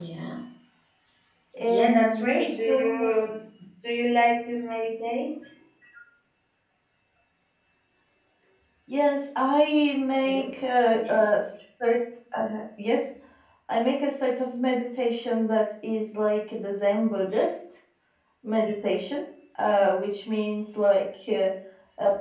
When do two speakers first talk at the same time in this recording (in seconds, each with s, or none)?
1.6 s